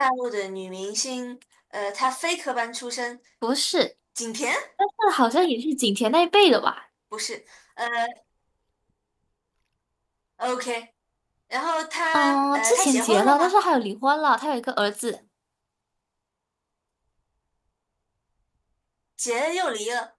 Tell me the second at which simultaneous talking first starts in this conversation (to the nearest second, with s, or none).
12 s